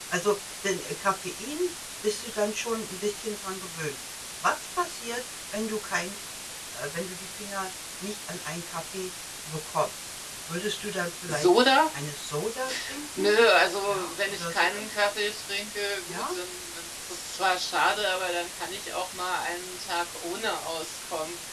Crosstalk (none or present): present